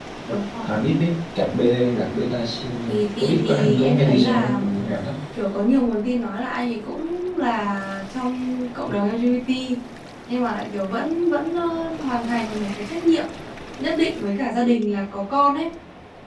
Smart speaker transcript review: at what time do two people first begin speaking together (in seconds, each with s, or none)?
2.9 s